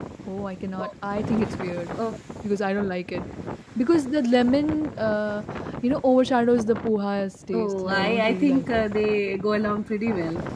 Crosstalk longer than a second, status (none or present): present